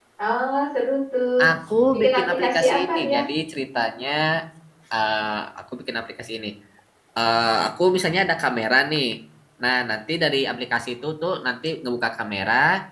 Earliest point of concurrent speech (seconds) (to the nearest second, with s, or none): 2 s